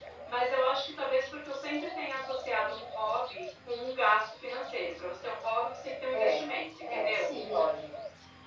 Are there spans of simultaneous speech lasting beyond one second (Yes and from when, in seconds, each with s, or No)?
No